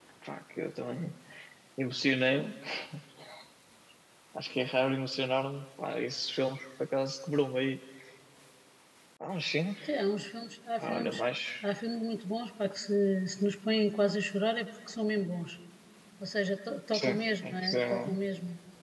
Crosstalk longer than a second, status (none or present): present